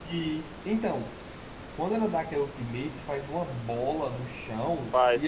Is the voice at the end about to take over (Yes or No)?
No